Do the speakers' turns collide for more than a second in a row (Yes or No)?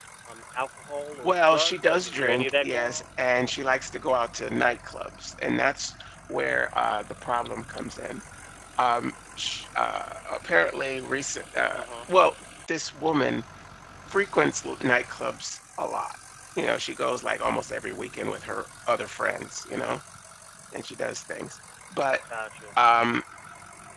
Yes